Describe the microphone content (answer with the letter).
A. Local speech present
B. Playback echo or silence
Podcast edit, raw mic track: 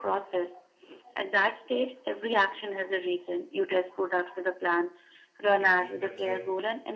A